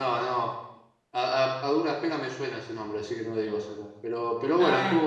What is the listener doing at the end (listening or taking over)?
listening